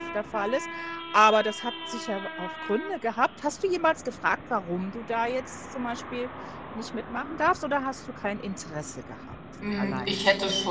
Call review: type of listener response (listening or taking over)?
taking over